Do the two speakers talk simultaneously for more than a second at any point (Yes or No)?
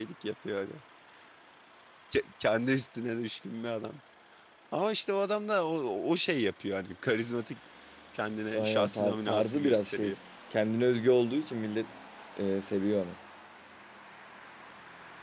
Yes